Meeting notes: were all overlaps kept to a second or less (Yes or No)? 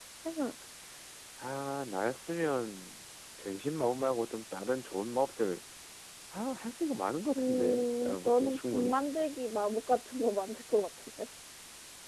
No